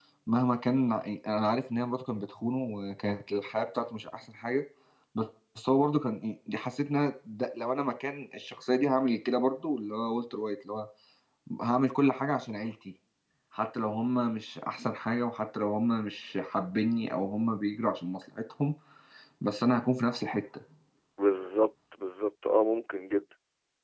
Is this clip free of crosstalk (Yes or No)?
Yes